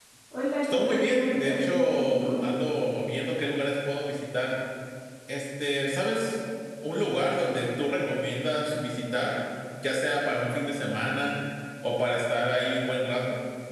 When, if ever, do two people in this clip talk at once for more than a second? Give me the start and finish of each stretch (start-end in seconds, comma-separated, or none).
0.6-2.2